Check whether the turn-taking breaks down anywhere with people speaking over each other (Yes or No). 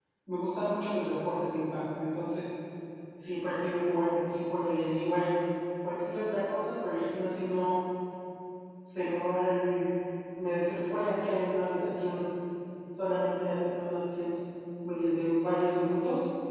No